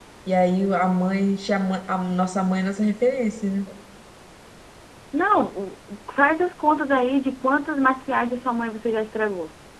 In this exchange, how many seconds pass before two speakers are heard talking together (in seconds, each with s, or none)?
none